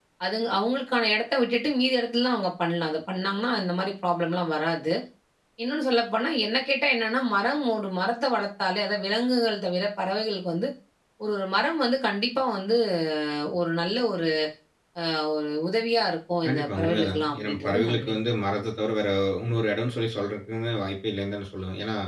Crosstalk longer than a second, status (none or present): present